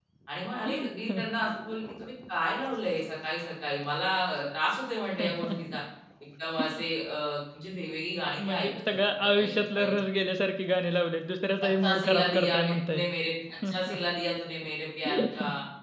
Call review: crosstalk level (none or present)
present